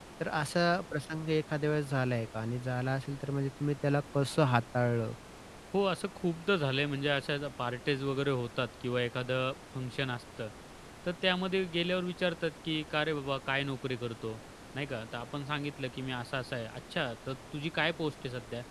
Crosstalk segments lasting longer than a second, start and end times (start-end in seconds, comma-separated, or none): none